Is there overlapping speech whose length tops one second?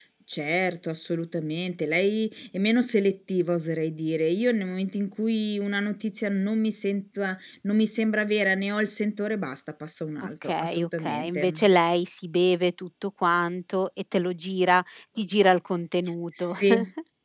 Yes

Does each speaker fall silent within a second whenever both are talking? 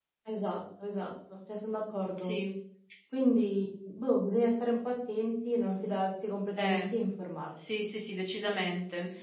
Yes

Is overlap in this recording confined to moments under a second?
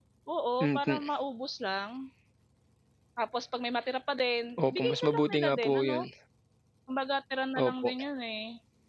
No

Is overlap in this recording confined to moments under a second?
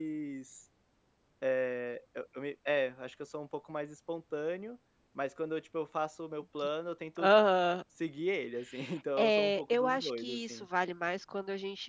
No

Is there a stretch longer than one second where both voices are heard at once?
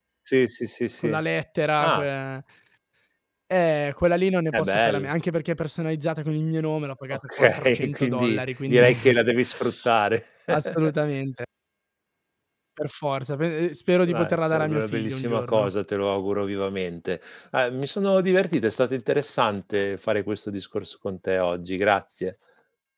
Yes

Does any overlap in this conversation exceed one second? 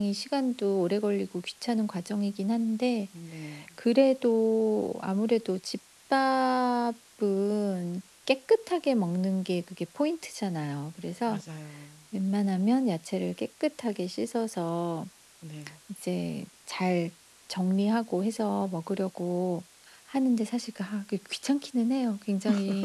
No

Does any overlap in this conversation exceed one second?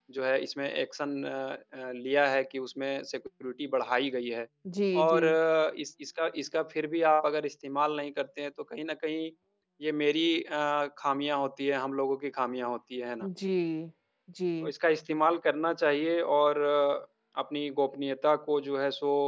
No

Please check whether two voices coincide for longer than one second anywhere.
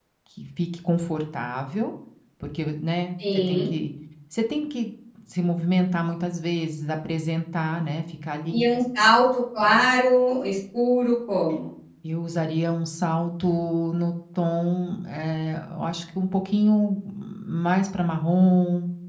No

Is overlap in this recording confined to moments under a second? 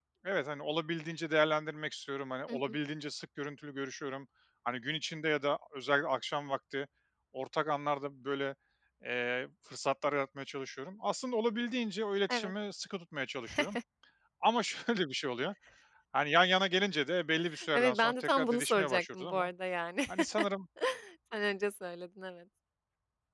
No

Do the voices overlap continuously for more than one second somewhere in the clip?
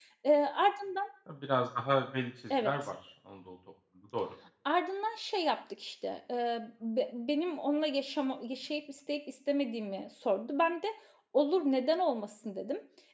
No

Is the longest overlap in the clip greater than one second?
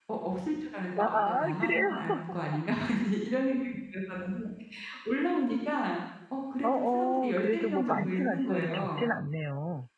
Yes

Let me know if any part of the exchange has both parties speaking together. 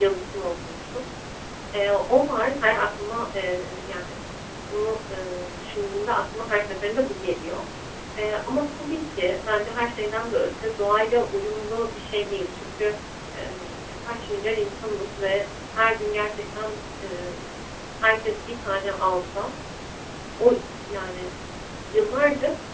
No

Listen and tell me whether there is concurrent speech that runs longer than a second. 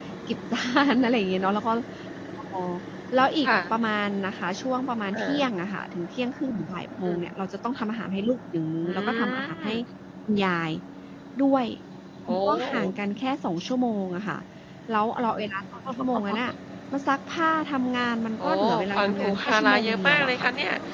Yes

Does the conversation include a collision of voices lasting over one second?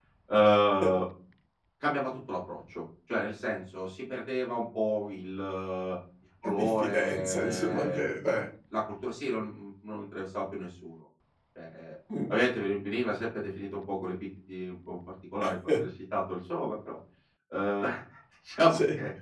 Yes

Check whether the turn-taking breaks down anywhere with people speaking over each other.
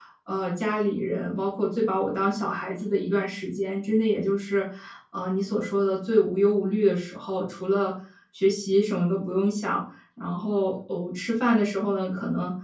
No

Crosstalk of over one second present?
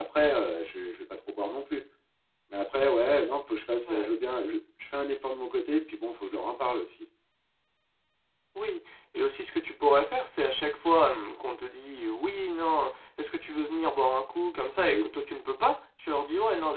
No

